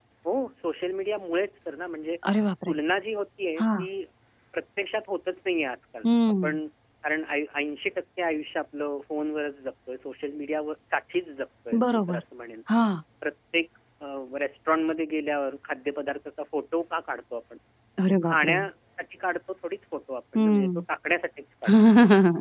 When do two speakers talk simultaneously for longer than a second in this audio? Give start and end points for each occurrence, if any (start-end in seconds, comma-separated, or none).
none